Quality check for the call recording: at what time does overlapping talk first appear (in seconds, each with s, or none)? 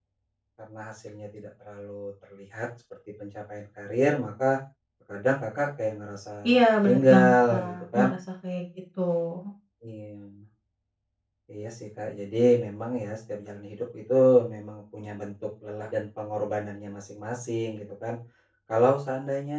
6.4 s